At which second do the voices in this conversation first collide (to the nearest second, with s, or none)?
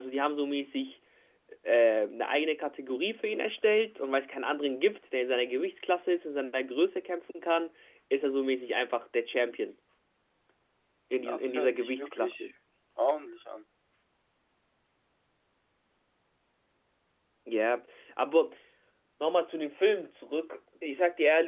11 s